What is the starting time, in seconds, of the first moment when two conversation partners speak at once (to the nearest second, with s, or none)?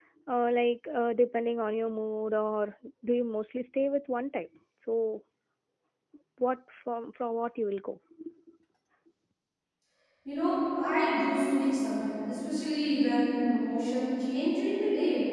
none